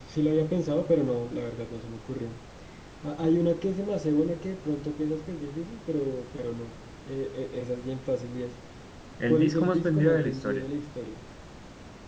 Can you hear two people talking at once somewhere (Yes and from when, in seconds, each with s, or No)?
Yes, from 9.2 s